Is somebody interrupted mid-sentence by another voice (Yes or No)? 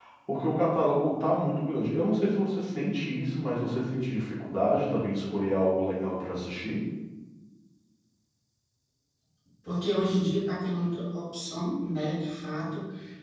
No